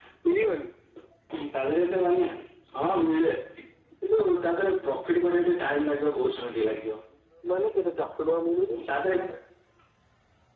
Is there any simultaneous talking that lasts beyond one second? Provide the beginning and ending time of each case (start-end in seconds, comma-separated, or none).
none